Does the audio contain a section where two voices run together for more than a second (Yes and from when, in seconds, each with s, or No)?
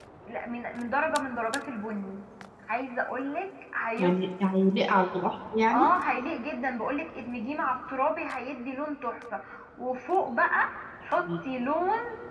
No